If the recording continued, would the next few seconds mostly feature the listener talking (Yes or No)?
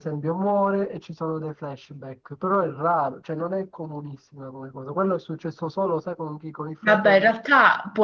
Yes